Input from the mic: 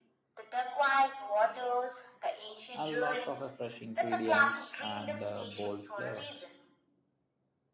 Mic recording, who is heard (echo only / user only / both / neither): both